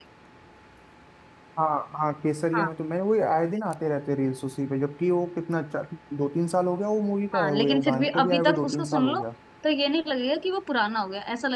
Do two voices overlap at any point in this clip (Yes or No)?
Yes